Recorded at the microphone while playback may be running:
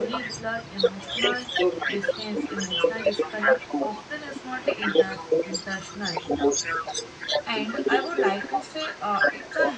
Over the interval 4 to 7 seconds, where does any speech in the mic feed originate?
both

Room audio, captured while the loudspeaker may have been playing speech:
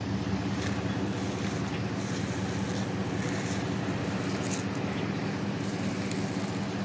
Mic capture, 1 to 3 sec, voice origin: neither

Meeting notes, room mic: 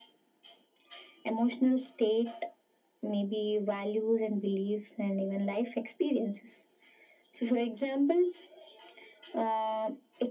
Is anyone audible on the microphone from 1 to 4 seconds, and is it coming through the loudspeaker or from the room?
echo only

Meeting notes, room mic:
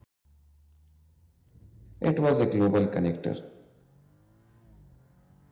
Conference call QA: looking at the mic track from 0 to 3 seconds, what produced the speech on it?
user only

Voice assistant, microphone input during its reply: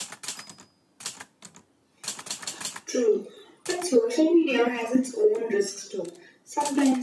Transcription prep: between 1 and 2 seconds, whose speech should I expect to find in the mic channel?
neither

